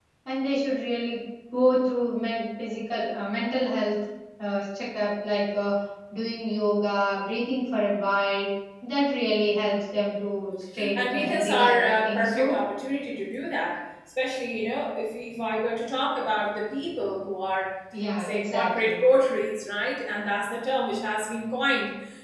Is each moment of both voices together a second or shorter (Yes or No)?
No